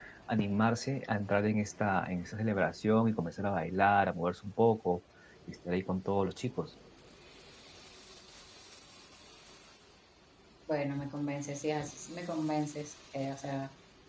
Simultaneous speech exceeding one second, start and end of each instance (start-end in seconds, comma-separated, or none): none